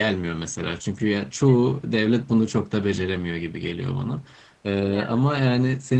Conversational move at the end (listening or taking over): listening